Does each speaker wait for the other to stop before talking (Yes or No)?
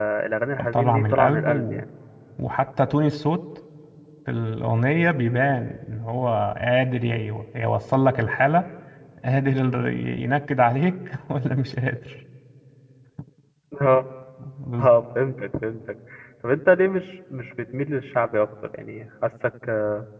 No